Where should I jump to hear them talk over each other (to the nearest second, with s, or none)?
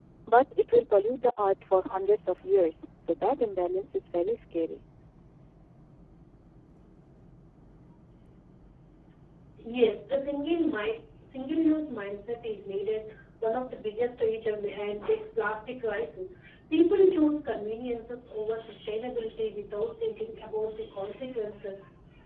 none